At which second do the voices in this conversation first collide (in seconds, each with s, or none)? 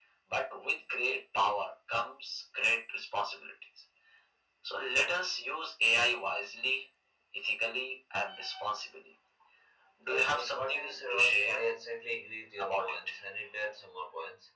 10.1 s